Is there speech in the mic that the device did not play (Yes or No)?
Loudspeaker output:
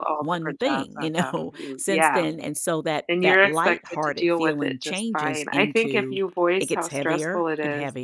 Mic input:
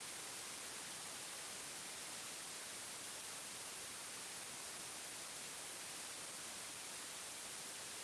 No